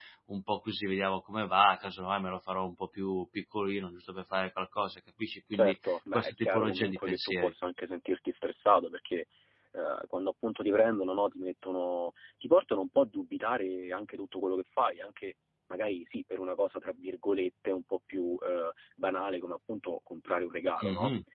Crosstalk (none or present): present